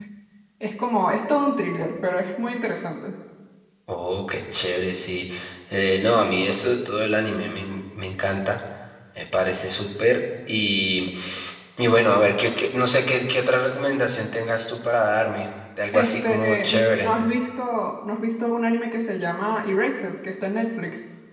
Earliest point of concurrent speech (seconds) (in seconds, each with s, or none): 15.9 s